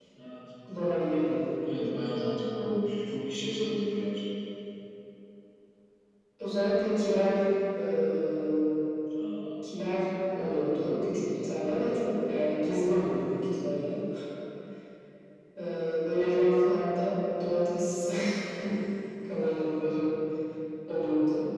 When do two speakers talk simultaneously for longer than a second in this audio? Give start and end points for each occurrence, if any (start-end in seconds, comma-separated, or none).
none